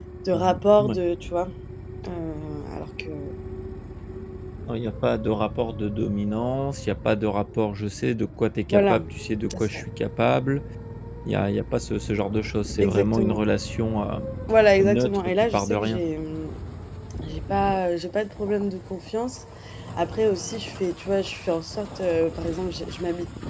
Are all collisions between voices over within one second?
No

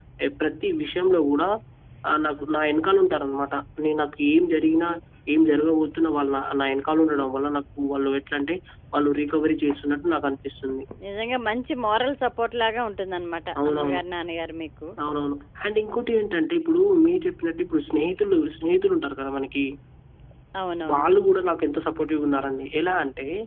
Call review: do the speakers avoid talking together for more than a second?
Yes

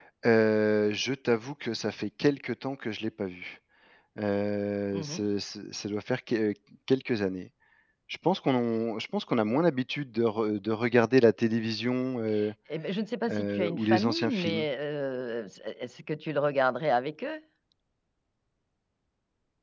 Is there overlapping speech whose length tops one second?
Yes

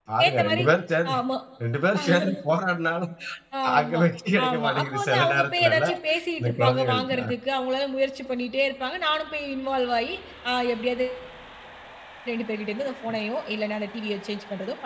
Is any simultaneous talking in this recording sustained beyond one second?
Yes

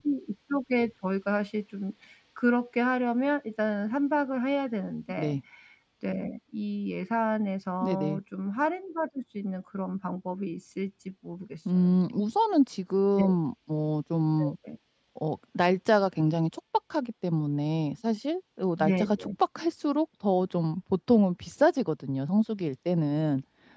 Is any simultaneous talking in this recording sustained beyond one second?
No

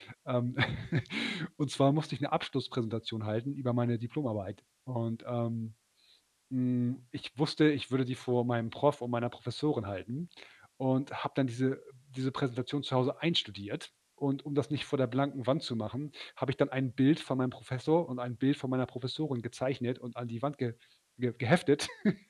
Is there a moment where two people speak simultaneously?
No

